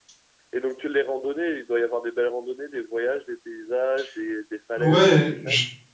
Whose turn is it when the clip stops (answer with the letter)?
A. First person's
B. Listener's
B